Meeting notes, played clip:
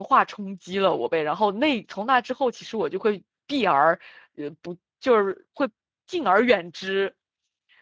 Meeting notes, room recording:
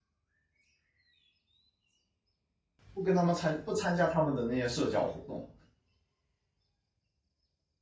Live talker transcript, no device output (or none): 不跟他们参不参加他们的那些社交活动。